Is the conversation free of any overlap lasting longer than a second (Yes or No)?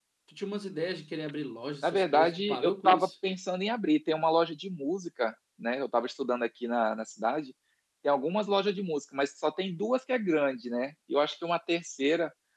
No